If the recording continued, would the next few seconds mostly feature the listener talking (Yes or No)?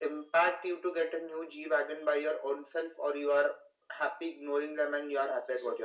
Yes